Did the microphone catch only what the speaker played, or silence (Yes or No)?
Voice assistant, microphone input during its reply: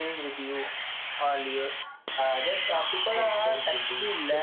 No